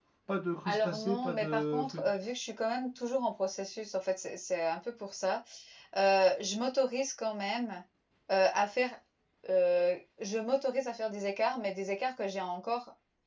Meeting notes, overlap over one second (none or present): present